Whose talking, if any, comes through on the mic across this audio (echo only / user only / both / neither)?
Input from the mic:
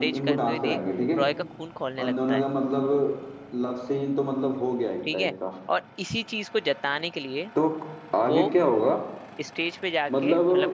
both